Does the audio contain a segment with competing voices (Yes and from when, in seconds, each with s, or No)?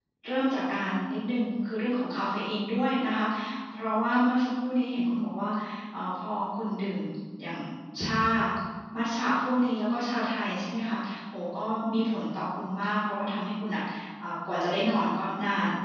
No